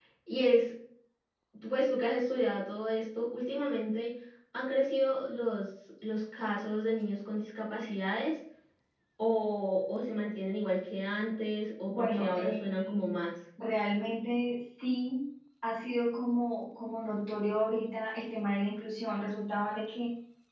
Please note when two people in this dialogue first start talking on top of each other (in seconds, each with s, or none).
11.9 s